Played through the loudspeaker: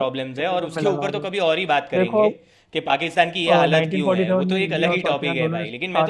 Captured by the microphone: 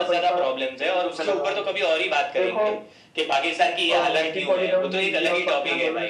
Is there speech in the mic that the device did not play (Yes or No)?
No